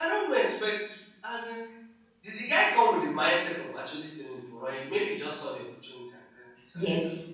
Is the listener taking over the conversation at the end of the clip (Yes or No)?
Yes